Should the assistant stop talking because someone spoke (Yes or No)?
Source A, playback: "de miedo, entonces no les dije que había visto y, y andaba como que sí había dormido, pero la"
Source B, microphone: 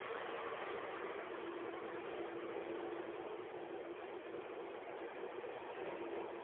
No